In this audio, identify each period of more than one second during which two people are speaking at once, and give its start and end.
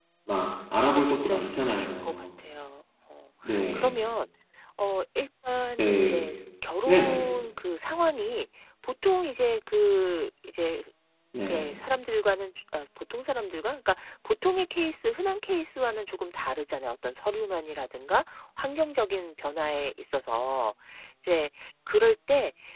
0.8-2.3

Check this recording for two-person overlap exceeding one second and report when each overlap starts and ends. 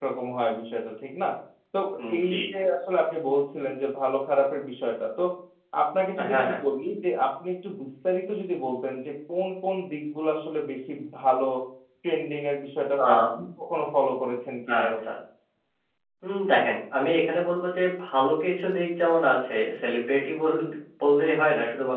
none

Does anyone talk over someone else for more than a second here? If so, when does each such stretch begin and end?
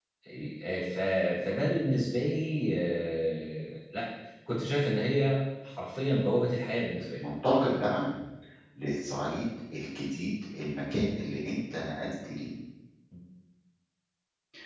none

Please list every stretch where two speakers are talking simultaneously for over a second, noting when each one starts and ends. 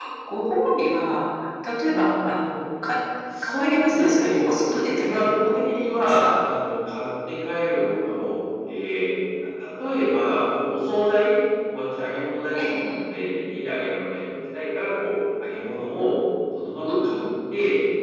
3.4-6.2

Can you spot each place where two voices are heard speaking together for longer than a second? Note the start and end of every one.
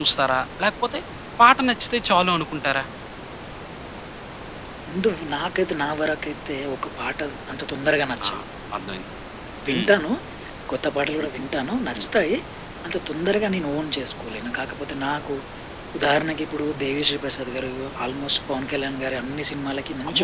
none

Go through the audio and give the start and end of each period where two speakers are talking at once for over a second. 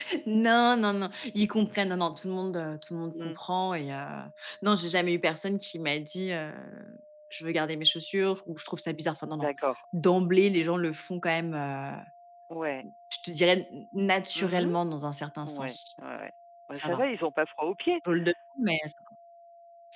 none

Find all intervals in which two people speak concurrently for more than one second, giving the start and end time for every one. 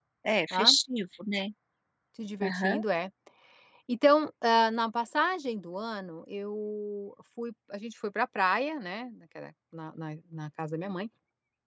none

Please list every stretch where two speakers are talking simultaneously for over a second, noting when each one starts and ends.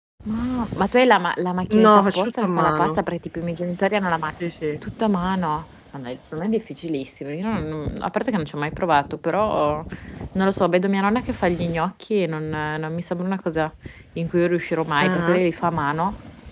1.7-3.0

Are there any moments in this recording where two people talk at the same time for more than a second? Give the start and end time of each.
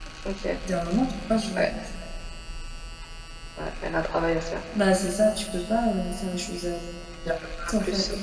none

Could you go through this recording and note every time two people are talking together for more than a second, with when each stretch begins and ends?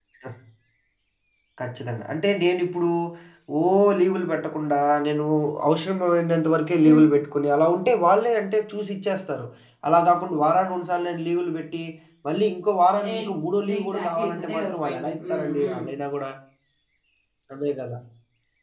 13.8-15.8

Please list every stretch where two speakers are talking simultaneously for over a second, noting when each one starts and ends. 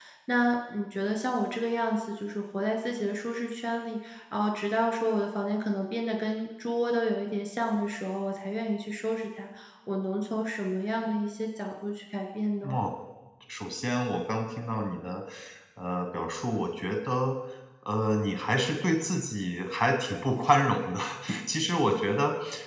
none

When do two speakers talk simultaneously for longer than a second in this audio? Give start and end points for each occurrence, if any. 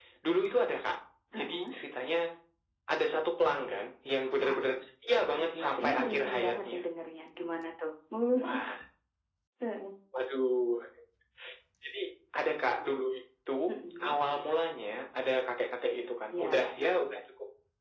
5.3-6.8

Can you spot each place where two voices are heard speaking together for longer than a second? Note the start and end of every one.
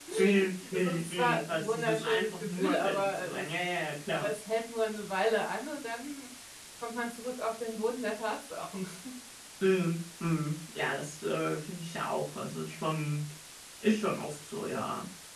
0.7-3.5

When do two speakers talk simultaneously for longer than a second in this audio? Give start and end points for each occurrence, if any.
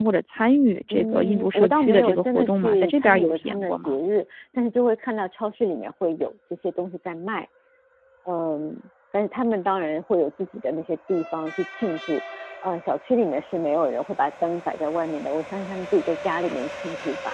0.9-4.0

